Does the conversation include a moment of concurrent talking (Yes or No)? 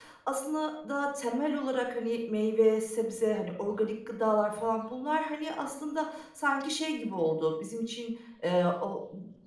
No